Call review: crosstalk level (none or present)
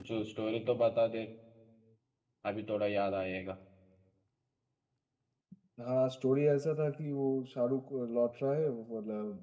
none